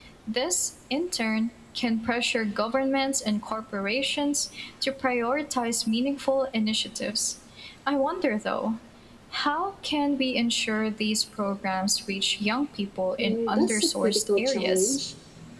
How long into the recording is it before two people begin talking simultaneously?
13 s

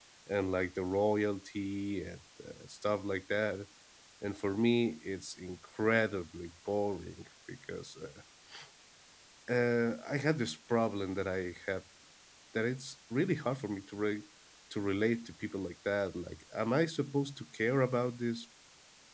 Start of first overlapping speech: none

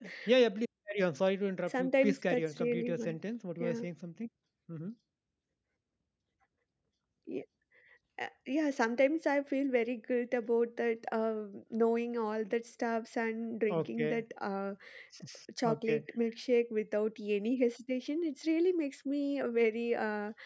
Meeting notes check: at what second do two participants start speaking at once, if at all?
2 s

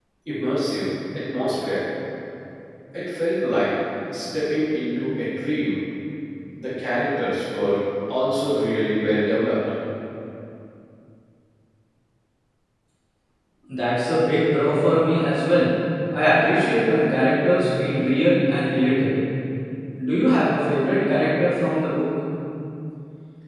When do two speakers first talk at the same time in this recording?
none

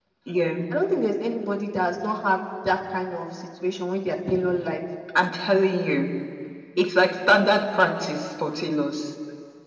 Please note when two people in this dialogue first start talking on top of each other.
none

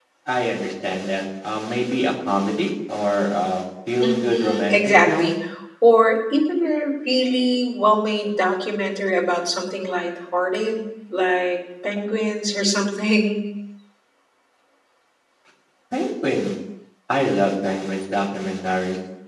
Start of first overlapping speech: 4 s

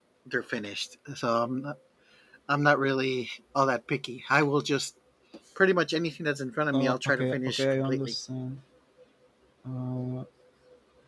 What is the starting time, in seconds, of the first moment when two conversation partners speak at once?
7 s

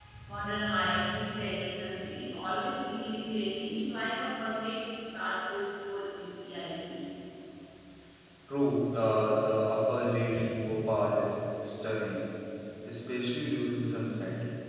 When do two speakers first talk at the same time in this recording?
none

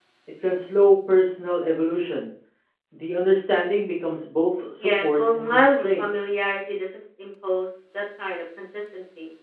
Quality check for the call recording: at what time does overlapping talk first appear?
5 s

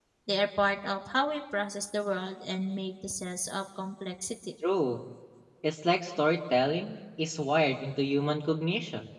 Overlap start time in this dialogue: none

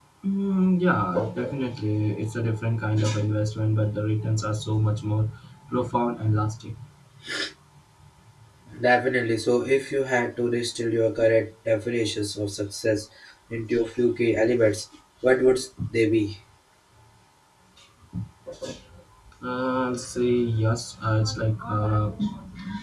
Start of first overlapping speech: none

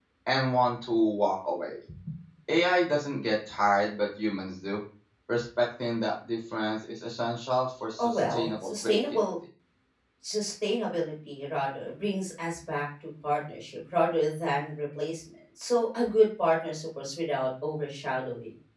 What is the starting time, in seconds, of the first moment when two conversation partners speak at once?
8 s

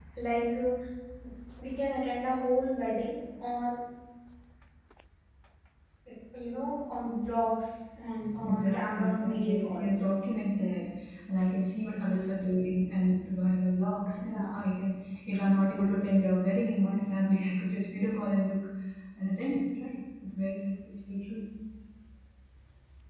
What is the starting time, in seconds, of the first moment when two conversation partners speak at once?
8 s

